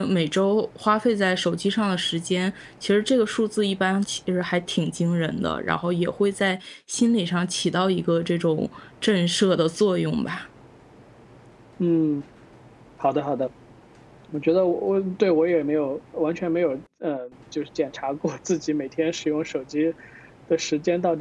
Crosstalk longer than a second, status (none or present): none